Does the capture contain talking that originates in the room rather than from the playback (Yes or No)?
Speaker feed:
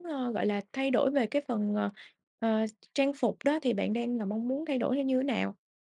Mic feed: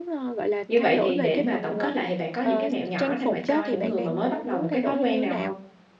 Yes